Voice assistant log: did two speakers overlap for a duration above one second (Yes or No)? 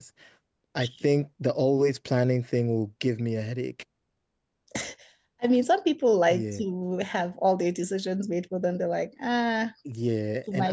No